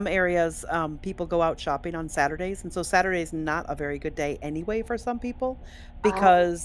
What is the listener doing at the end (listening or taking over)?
listening